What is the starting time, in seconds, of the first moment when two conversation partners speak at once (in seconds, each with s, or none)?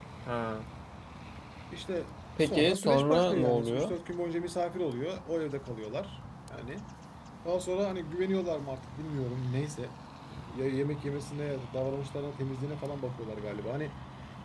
2.4 s